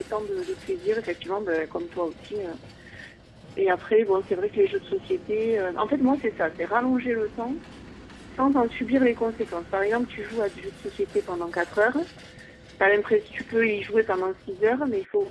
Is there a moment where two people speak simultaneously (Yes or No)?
No